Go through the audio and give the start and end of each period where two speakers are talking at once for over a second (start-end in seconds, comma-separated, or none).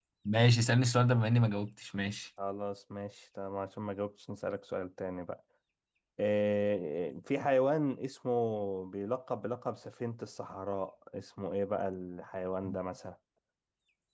none